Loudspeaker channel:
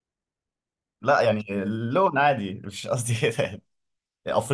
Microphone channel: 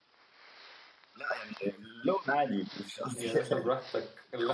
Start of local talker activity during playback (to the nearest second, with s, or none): 3 s